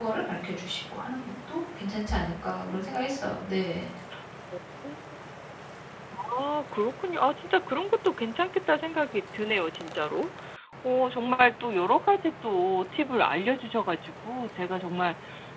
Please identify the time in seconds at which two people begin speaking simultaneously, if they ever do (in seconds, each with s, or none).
none